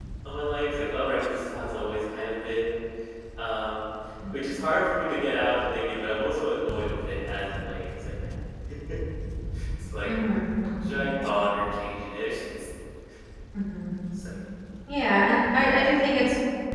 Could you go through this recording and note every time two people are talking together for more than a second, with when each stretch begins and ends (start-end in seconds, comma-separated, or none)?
none